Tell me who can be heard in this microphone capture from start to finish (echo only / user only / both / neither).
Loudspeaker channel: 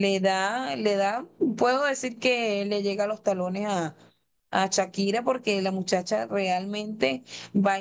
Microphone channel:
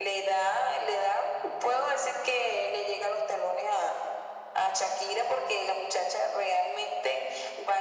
echo only